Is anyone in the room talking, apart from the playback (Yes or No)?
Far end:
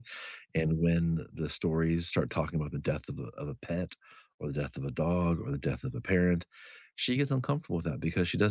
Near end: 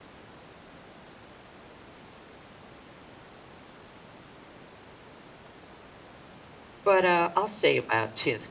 Yes